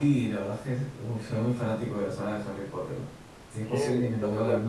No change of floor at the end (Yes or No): No